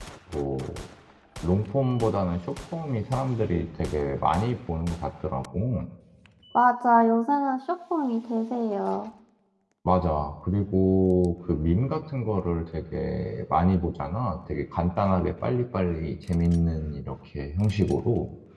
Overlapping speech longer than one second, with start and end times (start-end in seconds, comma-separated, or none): none